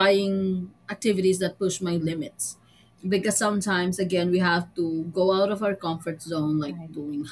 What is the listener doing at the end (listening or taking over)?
listening